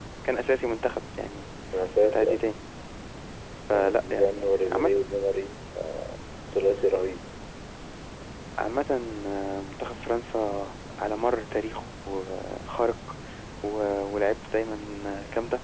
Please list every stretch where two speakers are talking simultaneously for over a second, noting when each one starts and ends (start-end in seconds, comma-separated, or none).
3.7-5.0